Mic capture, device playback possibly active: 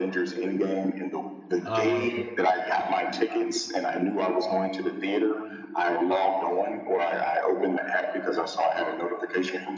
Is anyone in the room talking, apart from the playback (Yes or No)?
Yes